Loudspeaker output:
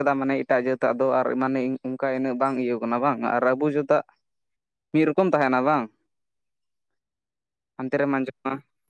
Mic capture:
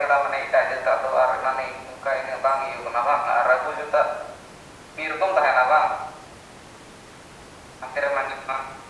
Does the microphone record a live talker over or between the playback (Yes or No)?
No